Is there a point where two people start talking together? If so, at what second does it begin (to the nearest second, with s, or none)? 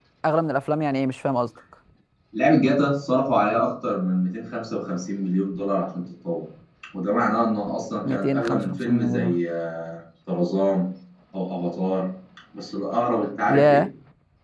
8 s